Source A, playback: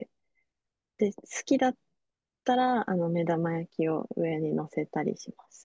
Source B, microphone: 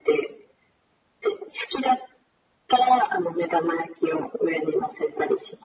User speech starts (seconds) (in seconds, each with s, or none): none